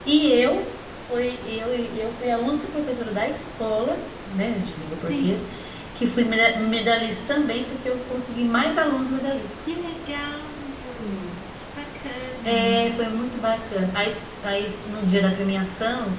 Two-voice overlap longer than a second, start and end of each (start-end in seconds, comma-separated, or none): none